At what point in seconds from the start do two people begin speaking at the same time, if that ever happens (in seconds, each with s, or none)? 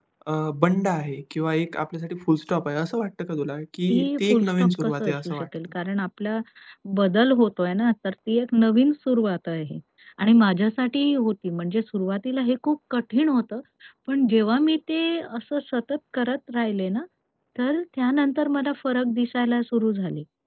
3.9 s